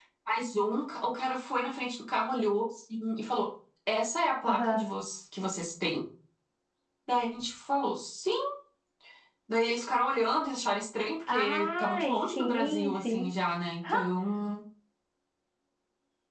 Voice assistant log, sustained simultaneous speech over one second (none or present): present